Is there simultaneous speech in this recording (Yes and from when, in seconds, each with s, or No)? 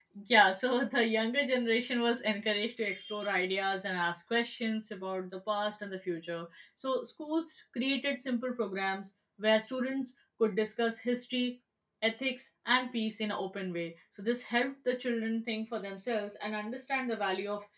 No